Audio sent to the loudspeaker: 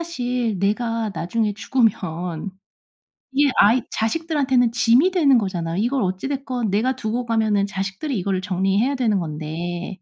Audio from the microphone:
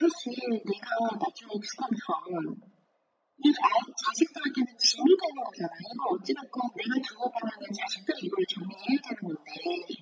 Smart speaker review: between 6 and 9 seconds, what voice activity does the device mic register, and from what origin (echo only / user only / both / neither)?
echo only